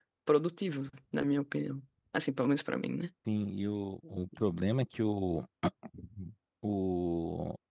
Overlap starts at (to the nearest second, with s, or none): none